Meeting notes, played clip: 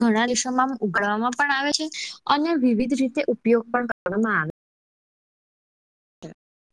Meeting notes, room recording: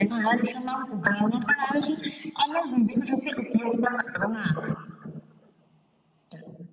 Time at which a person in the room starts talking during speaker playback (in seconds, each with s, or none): none